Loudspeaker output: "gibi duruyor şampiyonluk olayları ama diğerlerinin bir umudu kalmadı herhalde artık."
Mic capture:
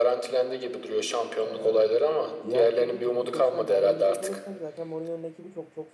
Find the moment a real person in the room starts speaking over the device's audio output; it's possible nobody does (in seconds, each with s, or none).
1.4 s